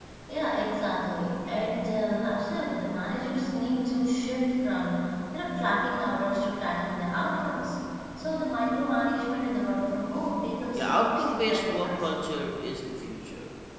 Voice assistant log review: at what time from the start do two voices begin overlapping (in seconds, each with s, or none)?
10.7 s